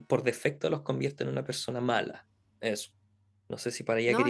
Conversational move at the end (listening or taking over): taking over